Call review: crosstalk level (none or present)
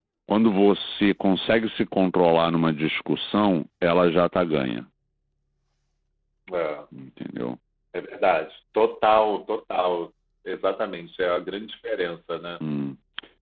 none